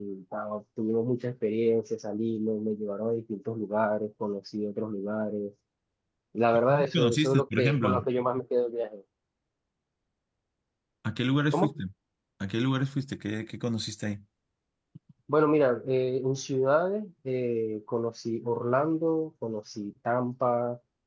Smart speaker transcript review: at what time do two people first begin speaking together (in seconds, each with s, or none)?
6.5 s